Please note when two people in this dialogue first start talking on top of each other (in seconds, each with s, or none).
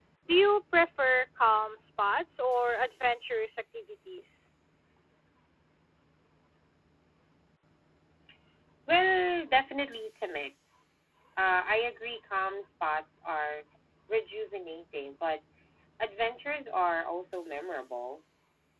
none